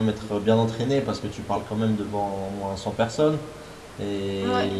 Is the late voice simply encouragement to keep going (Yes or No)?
Yes